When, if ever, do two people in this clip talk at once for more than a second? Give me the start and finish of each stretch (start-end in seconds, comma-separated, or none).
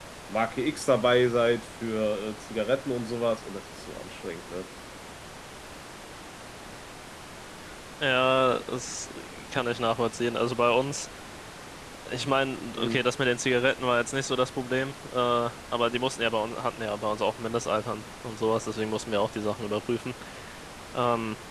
none